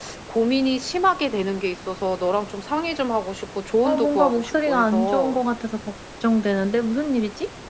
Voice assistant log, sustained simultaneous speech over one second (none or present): present